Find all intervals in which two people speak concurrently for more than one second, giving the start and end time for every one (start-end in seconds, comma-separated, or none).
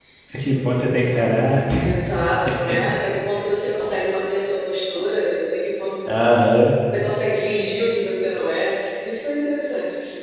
none